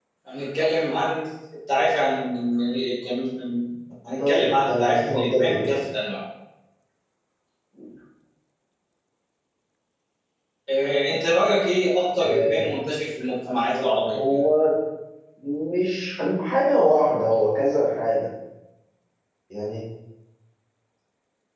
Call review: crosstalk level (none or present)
present